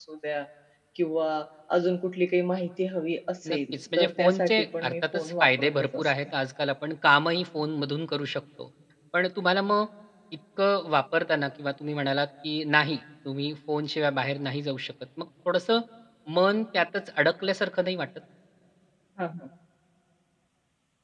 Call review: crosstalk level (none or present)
present